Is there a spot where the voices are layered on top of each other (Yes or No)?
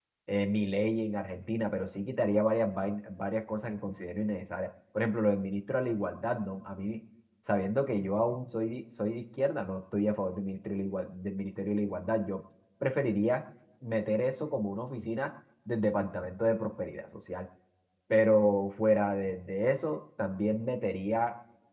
No